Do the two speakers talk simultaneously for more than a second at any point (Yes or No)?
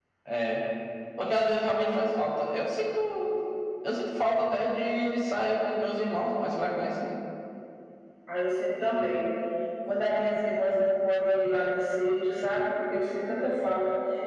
No